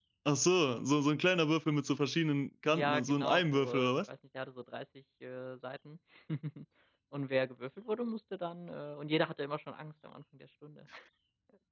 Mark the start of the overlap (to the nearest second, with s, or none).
3 s